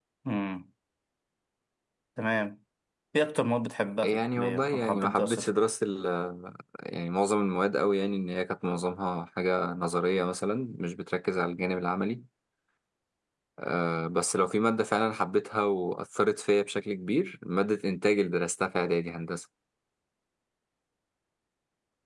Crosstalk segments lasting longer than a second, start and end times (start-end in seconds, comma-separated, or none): 4.0-5.5